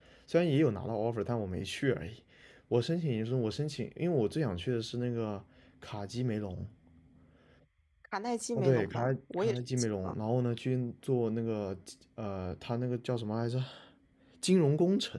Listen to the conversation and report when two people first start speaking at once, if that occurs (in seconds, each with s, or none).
8.6 s